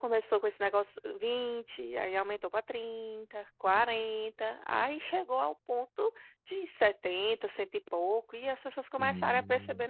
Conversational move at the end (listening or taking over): taking over